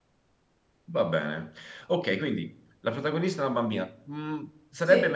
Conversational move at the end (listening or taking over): listening